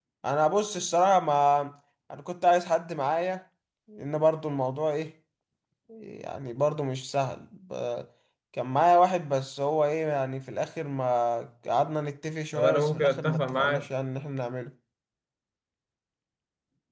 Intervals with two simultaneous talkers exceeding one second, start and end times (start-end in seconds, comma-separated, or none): 12.5-13.9